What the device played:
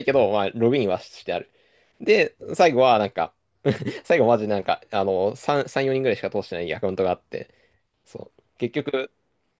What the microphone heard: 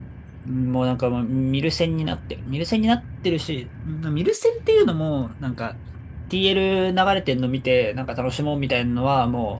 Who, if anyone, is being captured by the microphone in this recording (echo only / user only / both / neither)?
user only